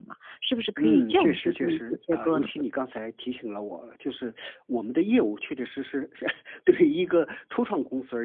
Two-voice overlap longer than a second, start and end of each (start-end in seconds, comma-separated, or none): 0.8-2.5